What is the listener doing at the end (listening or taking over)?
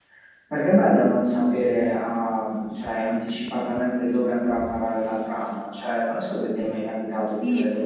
taking over